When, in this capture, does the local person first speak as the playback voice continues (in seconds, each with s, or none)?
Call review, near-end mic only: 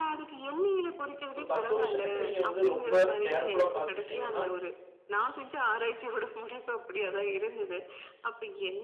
1.3 s